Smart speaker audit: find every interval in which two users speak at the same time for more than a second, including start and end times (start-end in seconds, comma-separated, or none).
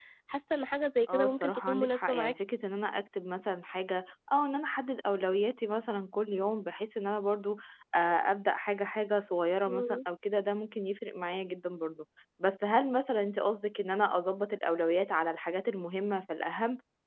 1.1-2.4